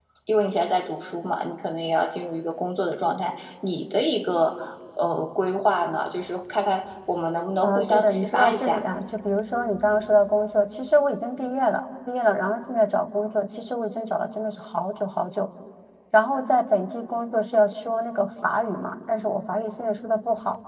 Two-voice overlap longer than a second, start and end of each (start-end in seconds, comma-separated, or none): 7.6-8.8